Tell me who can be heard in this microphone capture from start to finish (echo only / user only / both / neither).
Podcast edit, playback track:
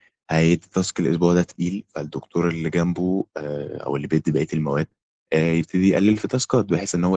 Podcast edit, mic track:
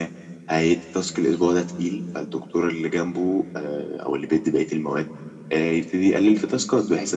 echo only